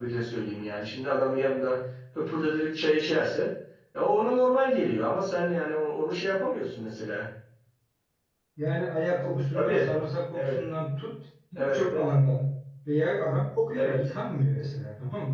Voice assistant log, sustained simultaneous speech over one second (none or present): none